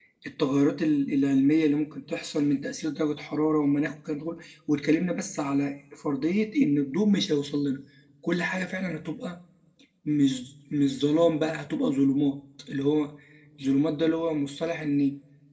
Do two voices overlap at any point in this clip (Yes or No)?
No